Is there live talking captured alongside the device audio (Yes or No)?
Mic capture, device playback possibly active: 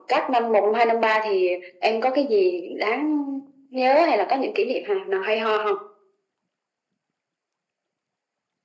No